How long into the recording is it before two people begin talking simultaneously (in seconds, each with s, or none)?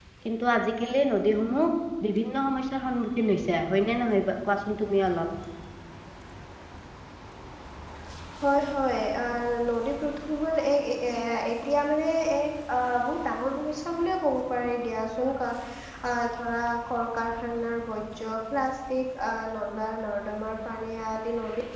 none